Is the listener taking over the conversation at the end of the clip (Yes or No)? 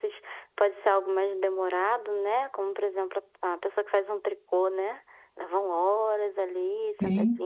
No